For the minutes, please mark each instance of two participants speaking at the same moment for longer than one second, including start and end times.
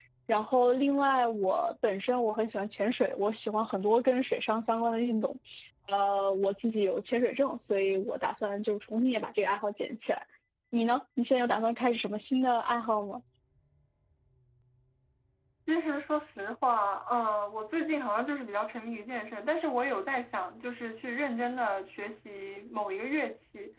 none

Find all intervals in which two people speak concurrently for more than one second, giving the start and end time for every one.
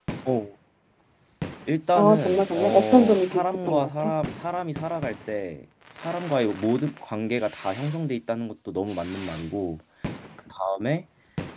1.9-4.1

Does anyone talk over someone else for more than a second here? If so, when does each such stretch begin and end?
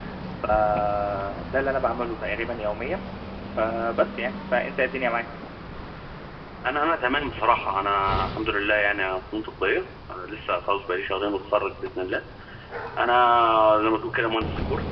none

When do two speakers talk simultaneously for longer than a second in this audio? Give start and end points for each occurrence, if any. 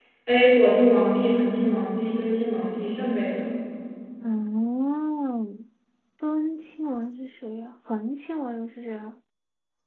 none

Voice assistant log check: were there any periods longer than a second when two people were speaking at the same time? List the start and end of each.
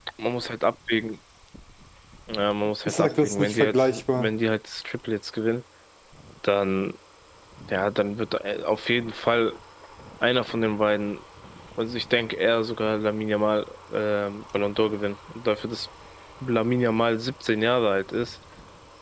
2.9-4.3

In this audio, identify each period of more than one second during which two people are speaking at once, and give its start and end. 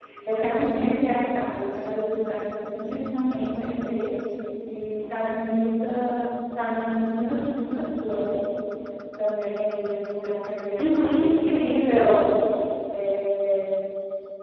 10.8-12.1

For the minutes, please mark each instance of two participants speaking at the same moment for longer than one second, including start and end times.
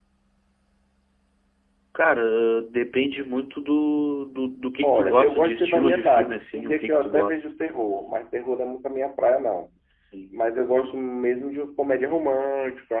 4.8-7.4

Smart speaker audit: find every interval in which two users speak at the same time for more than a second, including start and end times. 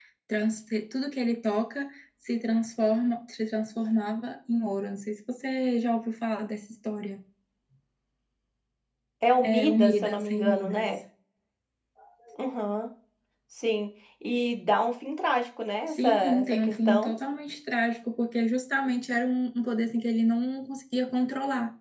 9.4-10.9, 15.9-17.1

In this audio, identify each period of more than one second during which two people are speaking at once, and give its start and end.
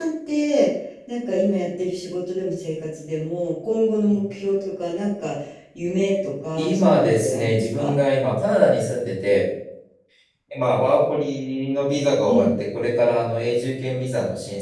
6.6-8.0

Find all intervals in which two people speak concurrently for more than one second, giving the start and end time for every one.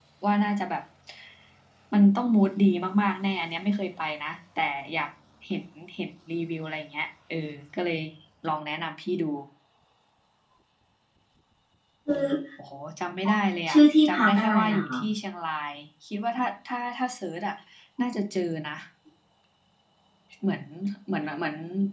13.7-15.0

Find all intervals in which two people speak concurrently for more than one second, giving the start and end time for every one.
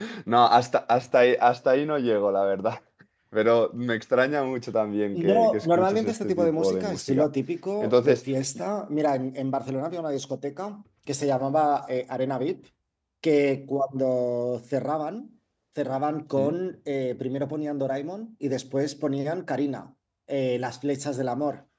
5.1-7.3

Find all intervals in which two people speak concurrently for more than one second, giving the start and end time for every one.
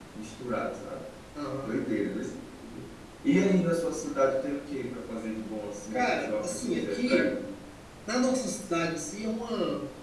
5.9-7.3

